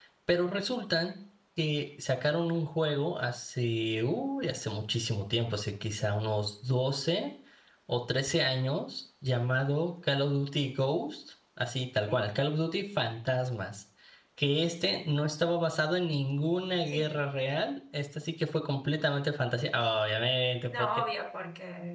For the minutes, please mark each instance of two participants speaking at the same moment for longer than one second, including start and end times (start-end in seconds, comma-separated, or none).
none